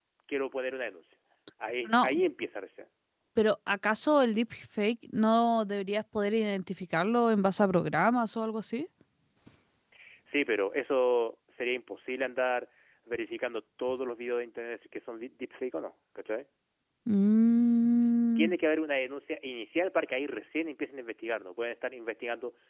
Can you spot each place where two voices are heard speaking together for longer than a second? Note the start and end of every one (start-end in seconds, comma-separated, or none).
none